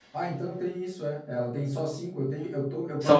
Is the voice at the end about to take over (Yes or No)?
Yes